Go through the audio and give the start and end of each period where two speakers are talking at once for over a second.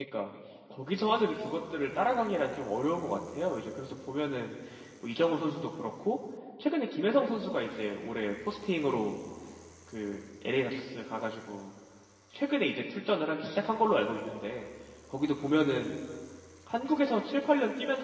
none

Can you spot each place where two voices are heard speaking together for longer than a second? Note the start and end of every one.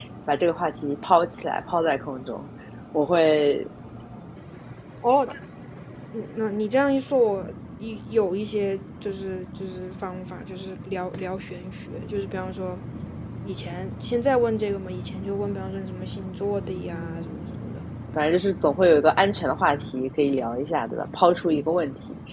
16.6-17.8

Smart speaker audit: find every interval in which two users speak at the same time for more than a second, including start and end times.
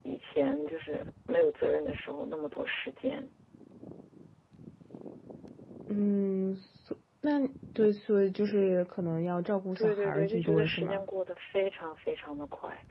9.8-11.0

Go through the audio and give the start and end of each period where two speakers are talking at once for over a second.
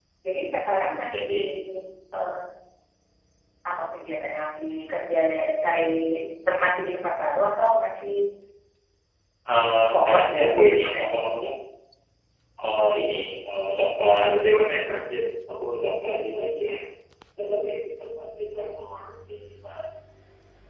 9.9-11.2

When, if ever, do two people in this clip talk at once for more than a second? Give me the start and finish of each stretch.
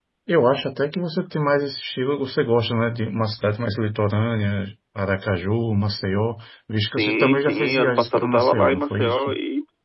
7.0-9.4

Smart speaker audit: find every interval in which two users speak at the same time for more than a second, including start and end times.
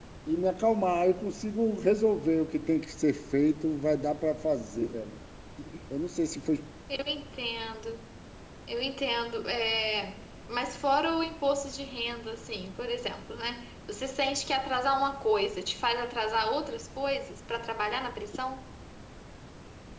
none

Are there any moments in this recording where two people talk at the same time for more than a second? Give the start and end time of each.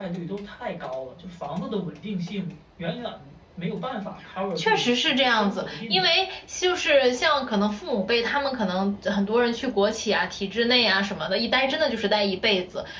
4.6-6.1

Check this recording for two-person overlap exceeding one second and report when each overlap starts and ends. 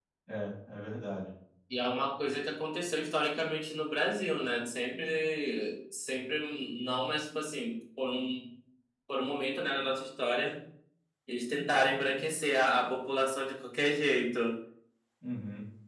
none

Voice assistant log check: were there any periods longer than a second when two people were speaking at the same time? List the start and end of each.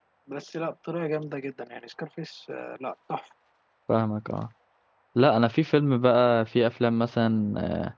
none

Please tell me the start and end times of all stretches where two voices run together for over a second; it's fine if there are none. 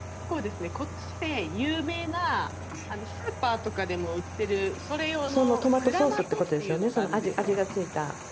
5.3-7.5

